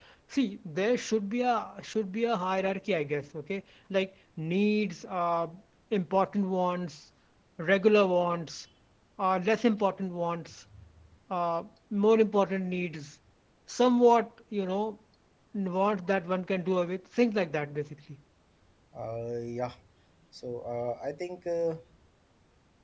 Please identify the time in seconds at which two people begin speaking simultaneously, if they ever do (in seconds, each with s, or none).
none